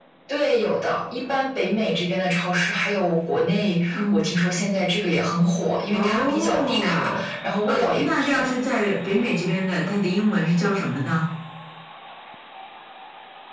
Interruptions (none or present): present